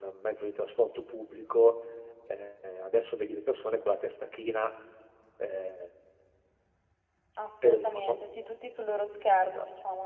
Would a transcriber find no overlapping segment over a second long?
Yes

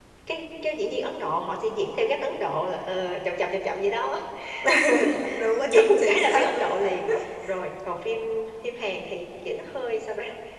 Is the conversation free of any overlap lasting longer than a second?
No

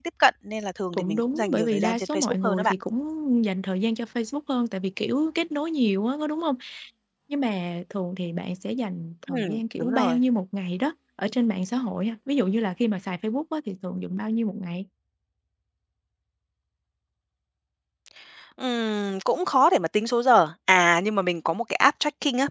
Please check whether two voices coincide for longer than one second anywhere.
Yes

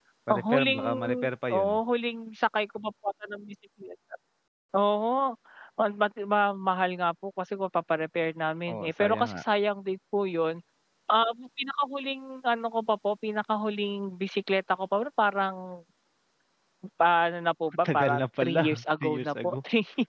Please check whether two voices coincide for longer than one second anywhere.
Yes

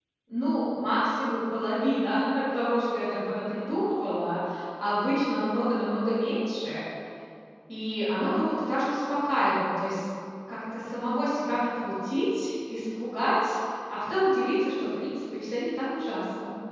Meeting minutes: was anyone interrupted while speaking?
No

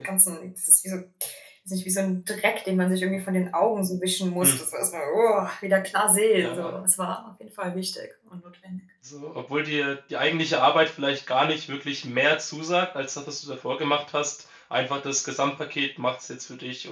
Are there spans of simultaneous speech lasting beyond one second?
No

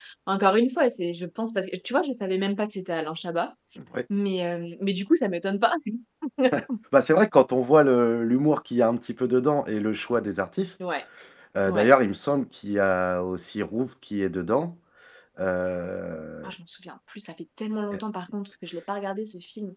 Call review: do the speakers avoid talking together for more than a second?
Yes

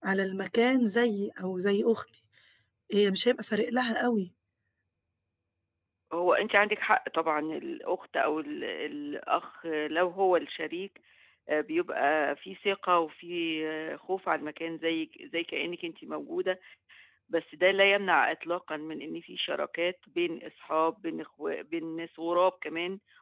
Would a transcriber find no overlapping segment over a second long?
Yes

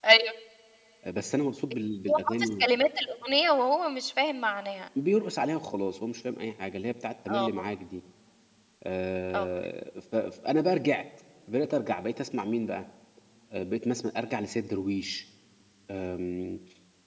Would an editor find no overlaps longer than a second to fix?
Yes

